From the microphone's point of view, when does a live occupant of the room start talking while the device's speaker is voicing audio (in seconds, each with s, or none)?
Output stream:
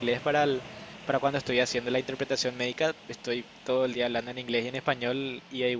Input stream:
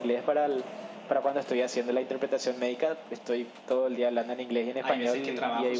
4.8 s